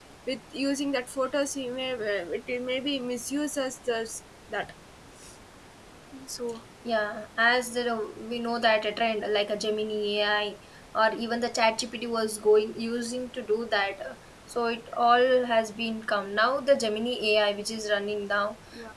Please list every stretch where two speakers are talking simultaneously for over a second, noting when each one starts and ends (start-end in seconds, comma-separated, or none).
none